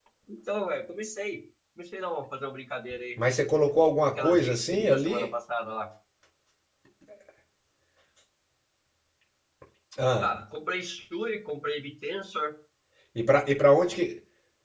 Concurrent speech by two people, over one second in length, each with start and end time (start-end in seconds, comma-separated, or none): 4.0-5.3